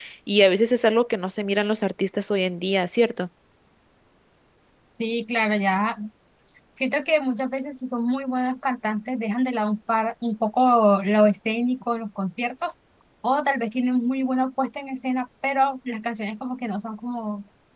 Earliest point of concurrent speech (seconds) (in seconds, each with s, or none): none